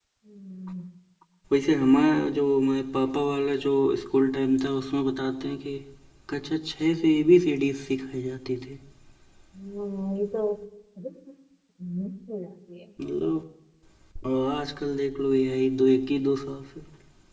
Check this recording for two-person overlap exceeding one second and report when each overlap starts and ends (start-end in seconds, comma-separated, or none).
none